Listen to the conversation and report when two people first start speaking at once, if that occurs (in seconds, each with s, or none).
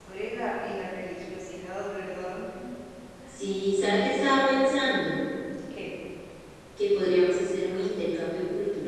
none